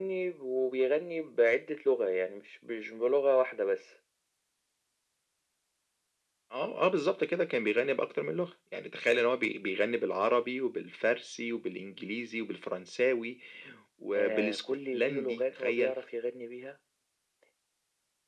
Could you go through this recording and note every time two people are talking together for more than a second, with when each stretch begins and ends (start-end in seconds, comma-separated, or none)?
14.1-16.0